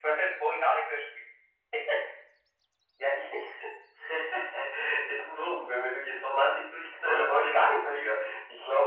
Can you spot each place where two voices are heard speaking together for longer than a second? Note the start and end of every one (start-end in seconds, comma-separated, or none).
7.0-8.3